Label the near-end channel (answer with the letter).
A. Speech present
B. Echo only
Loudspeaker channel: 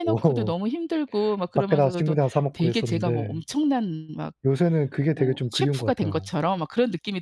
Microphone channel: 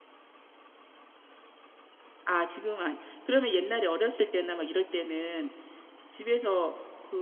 A